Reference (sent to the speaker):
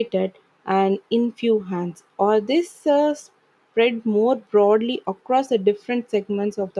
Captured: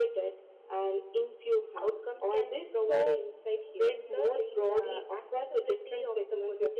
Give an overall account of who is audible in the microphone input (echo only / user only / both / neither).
both